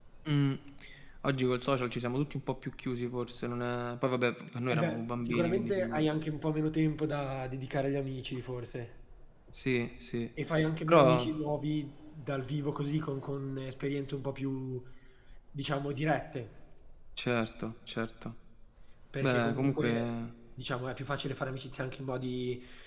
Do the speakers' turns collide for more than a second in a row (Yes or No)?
Yes